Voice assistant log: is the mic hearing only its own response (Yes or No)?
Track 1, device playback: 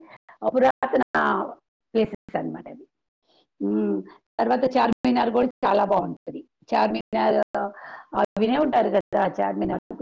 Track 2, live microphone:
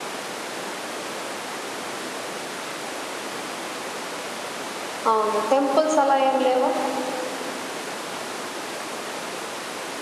No